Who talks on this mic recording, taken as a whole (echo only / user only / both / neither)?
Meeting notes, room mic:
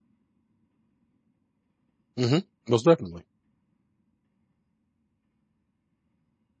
user only